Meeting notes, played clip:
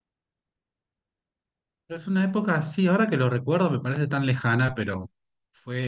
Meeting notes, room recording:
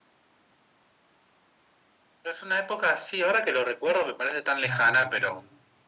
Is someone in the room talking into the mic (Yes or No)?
Yes